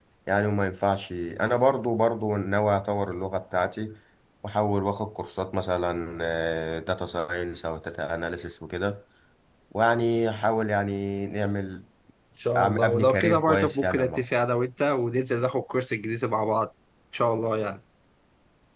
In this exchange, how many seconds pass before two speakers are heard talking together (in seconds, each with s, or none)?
12.6 s